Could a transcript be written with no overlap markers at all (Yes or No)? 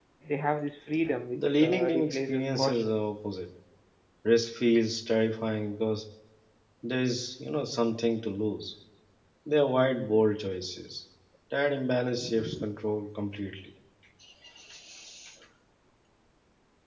No